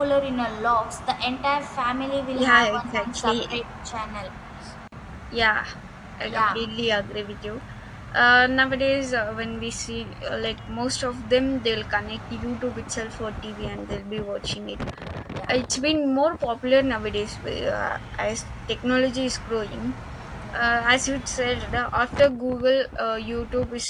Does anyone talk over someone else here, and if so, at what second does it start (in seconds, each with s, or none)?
2.4 s